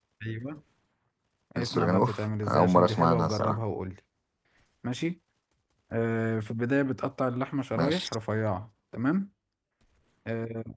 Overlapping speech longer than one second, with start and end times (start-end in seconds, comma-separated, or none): 1.6-3.6